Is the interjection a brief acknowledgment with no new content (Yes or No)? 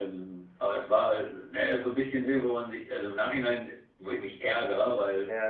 Yes